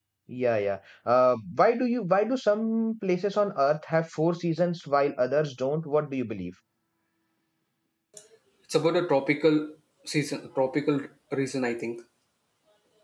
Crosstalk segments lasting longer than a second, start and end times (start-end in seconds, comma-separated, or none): none